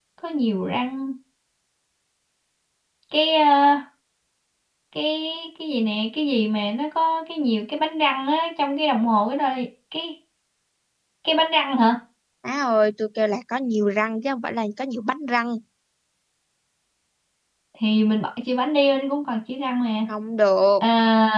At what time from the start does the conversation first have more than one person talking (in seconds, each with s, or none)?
none